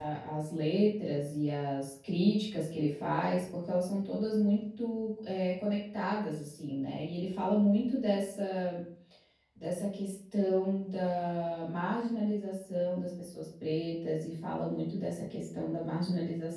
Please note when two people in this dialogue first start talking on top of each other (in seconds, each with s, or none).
none